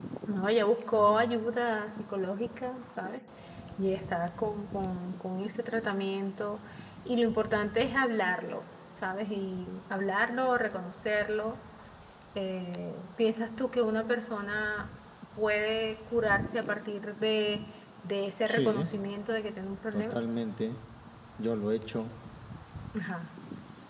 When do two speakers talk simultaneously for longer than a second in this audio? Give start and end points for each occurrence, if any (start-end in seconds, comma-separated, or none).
none